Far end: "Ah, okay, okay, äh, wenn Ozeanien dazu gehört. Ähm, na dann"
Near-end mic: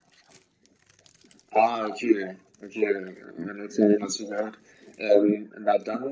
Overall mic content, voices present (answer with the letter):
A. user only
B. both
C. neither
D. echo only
D